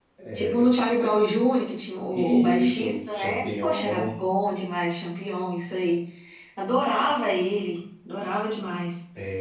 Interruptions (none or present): present